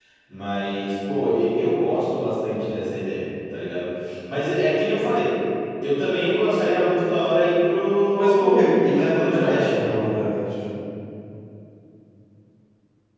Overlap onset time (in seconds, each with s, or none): 8.1 s